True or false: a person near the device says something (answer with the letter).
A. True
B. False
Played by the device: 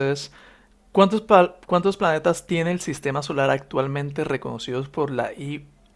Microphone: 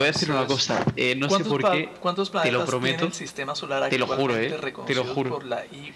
A